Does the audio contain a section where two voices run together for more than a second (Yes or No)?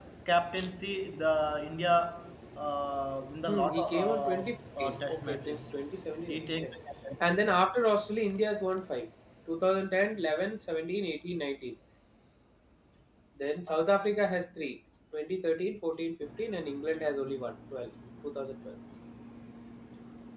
Yes